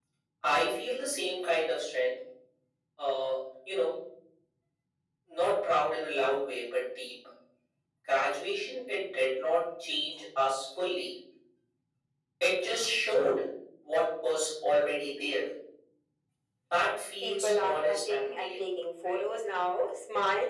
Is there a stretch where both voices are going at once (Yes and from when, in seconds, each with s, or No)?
Yes, from 17.2 s